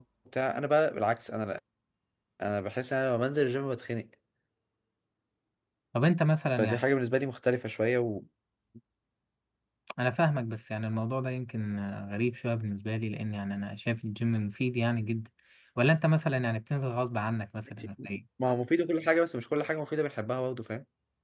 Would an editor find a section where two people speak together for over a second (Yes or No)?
No